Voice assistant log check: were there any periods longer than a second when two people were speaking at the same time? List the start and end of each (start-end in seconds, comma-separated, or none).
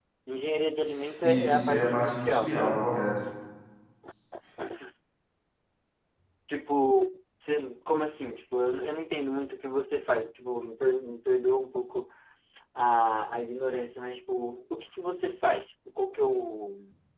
1.2-2.8